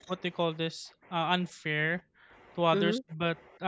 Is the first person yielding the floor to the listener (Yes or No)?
No